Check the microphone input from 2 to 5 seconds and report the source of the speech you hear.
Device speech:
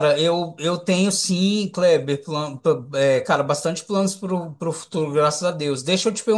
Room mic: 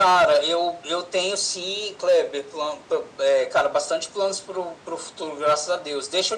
echo only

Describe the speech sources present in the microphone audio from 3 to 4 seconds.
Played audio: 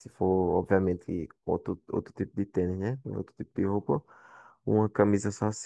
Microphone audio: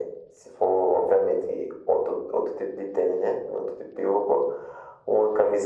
echo only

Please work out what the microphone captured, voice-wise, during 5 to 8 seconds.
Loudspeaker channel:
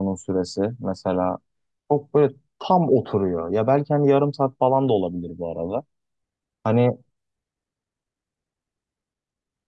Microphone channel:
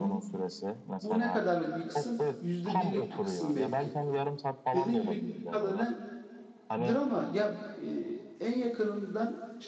both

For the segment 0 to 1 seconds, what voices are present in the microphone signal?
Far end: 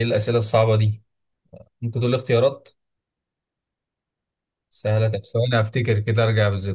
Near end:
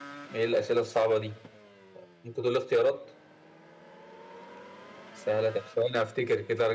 echo only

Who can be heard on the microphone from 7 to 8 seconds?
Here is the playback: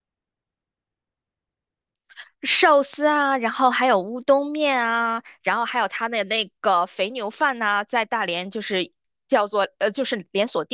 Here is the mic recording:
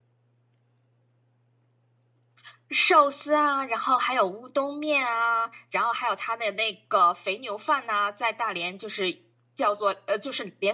echo only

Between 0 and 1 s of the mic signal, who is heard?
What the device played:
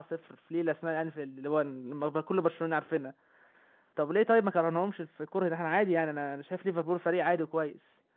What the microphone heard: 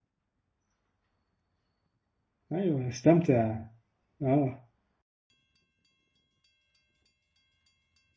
neither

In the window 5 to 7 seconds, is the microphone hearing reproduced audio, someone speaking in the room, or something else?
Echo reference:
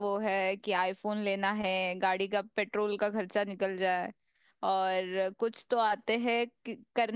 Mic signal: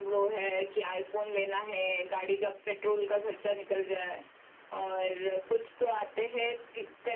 echo only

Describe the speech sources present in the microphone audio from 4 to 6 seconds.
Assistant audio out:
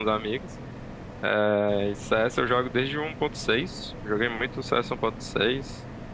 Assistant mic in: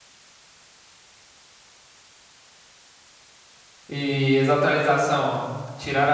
user only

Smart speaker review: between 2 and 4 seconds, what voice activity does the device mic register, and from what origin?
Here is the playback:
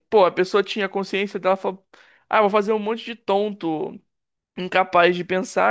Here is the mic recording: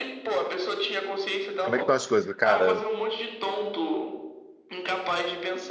both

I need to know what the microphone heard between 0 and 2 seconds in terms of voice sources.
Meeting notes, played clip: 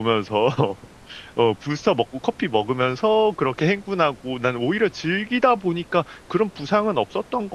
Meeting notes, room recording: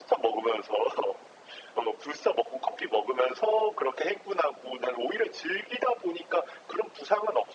echo only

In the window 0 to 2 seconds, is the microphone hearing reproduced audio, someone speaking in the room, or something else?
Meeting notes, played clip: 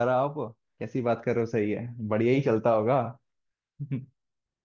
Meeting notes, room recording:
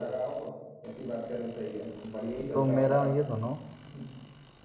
echo only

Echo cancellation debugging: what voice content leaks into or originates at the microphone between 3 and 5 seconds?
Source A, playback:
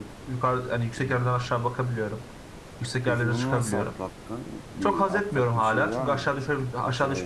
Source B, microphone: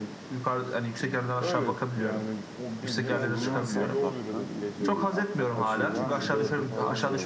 both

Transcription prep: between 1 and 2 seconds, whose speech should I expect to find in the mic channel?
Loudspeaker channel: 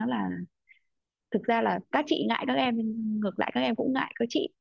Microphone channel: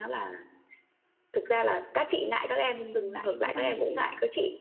echo only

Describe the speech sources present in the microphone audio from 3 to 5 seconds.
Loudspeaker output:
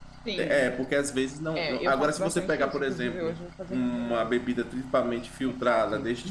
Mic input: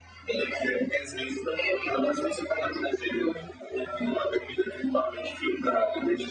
echo only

